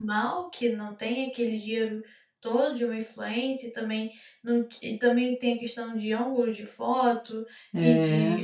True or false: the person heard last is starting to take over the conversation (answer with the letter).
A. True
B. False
B